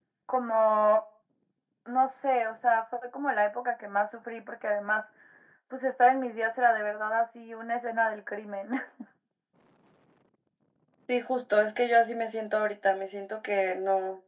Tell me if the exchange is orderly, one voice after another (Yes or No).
Yes